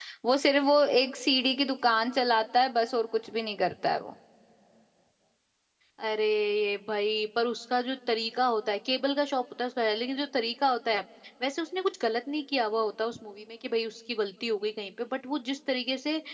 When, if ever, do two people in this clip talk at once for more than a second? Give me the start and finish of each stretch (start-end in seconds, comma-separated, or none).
none